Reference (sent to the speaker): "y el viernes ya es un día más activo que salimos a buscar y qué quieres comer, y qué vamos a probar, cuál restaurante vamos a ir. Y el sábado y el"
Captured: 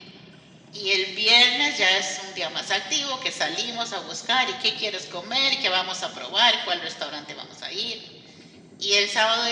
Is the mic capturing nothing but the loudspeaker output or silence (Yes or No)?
Yes